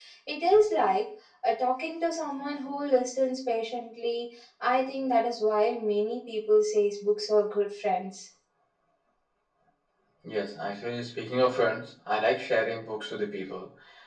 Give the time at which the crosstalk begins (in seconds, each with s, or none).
none